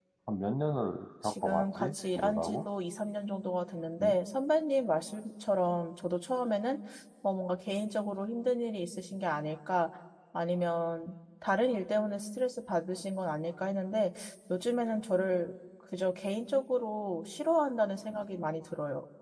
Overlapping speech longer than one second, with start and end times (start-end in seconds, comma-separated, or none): 1.2-2.6